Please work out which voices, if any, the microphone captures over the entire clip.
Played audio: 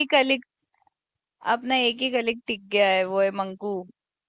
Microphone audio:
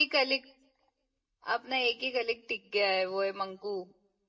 echo only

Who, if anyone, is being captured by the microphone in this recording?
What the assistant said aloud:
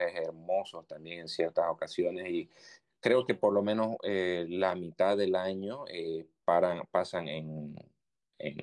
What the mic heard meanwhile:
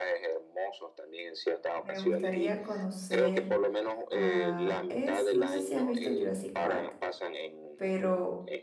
both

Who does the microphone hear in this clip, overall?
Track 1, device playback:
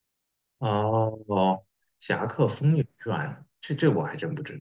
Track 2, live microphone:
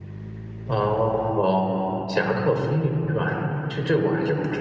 echo only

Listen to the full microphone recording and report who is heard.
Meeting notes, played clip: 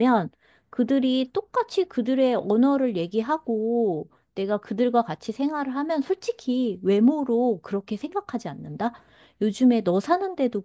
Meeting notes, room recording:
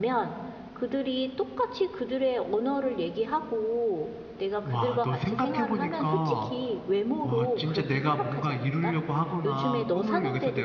both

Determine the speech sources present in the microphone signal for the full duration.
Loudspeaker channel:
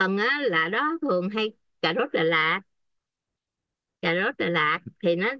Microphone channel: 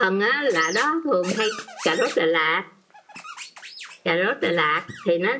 echo only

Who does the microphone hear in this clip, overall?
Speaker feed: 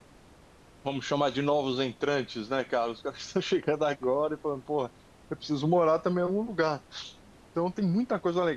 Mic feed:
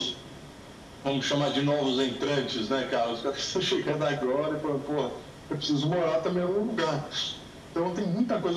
echo only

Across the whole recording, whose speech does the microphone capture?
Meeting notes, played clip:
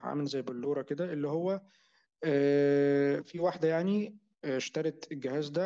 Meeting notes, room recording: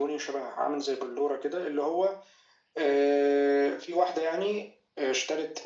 echo only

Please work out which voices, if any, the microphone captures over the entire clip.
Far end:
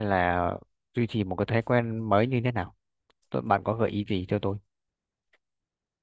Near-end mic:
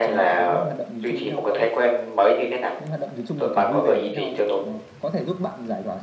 both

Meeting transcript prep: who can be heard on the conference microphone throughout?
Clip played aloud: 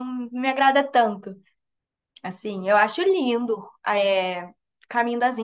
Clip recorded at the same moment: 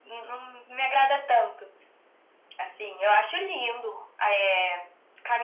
echo only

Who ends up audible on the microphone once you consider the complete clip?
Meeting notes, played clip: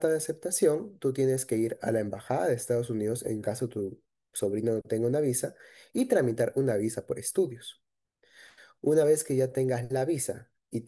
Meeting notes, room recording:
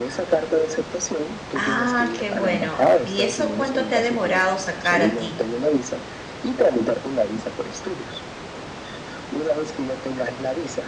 both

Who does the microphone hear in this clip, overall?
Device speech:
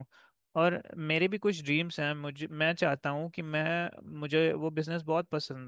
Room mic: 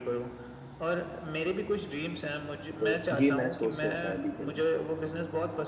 both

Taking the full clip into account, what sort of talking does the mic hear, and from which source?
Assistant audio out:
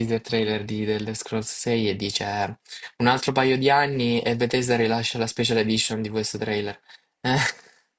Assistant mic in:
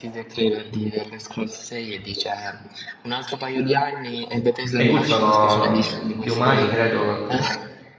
both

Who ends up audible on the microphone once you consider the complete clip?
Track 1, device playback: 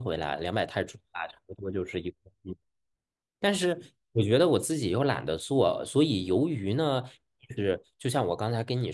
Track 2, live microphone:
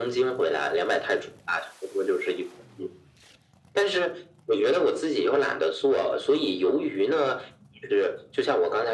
echo only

